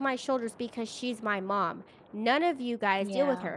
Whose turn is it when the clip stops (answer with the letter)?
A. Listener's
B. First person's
B